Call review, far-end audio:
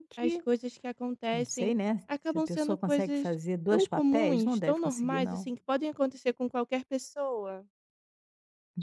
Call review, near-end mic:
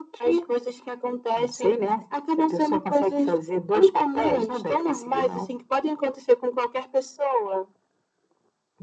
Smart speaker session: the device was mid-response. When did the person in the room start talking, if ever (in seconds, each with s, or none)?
none